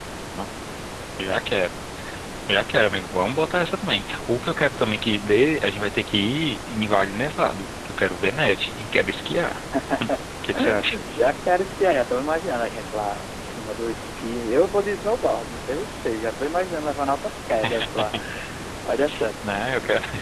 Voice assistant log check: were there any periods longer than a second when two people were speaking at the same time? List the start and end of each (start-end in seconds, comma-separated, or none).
none